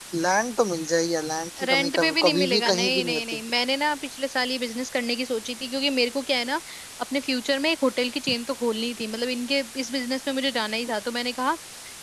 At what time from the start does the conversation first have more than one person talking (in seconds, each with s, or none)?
1.6 s